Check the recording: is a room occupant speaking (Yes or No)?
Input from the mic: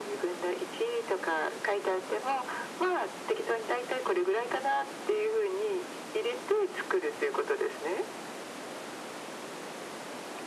No